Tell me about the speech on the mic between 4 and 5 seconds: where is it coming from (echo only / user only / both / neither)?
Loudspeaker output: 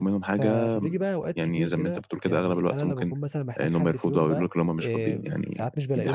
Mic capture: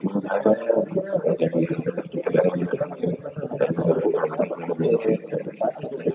echo only